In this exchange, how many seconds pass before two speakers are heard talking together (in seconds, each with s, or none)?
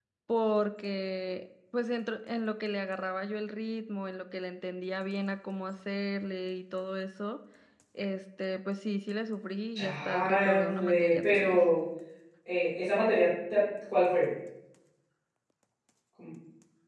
9.8 s